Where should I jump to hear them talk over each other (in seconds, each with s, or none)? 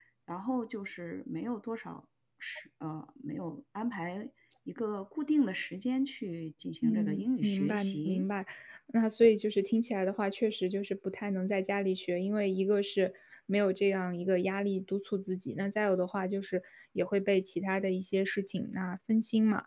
6.8 s